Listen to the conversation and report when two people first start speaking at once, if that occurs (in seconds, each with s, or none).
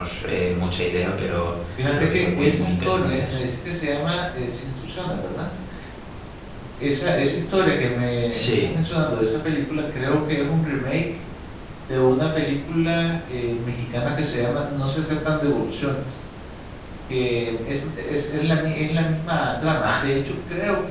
1.9 s